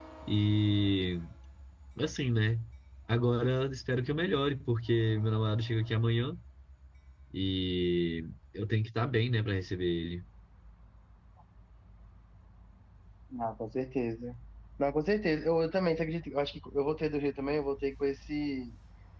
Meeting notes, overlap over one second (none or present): none